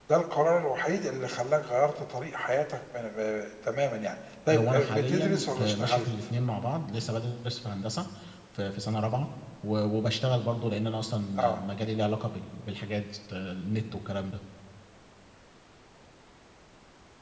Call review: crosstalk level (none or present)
present